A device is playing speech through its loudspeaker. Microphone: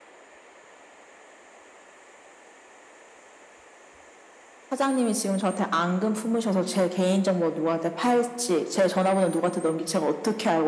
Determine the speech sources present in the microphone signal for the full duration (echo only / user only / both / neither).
echo only